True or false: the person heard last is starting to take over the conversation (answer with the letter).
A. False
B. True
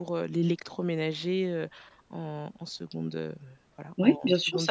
B